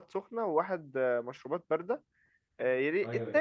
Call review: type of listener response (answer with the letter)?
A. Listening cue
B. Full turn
A